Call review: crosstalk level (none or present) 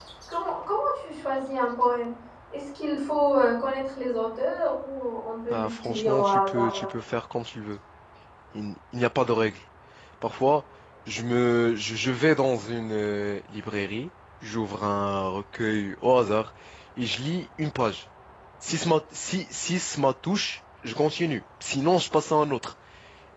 present